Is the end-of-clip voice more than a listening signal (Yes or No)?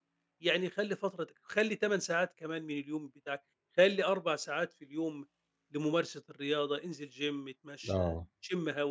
No